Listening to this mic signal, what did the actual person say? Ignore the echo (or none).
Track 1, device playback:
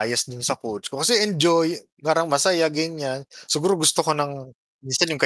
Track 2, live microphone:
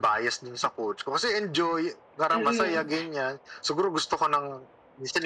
Mm.